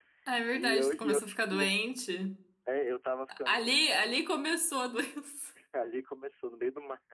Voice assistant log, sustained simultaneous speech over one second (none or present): present